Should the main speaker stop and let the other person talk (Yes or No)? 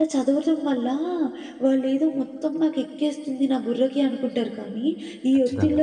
No